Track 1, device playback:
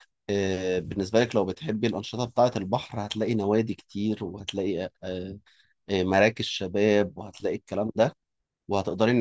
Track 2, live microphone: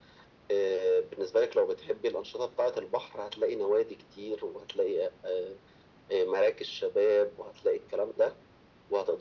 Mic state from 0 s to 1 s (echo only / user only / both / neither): echo only